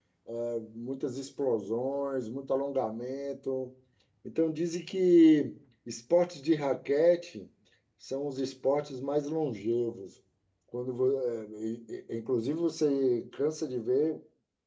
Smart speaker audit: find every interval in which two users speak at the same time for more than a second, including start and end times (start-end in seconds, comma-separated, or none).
none